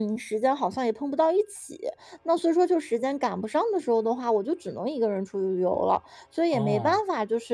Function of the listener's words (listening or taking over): listening